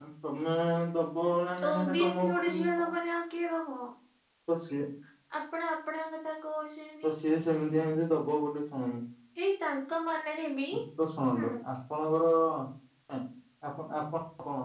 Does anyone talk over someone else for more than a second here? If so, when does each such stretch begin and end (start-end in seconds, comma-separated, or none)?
1.7-2.9